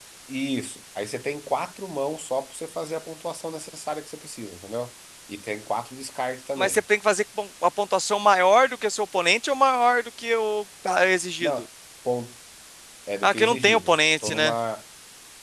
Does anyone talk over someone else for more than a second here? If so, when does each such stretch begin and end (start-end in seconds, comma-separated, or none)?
13.2-14.6